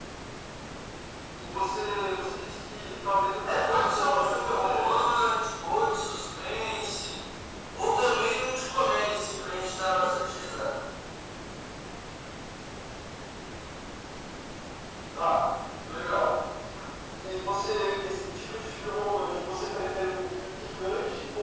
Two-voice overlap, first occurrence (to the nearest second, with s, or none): 3 s